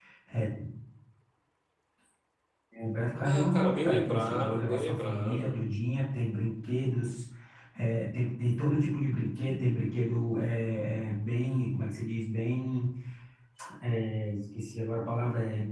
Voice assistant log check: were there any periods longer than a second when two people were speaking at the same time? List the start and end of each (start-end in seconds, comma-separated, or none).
3.1-5.5